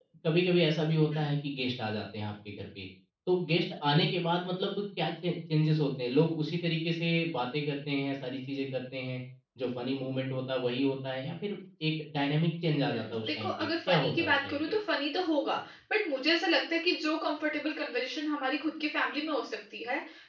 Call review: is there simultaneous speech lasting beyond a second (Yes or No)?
Yes